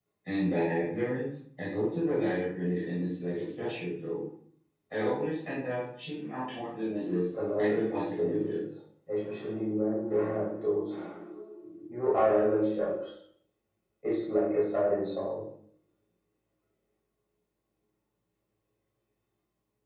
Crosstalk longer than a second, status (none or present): present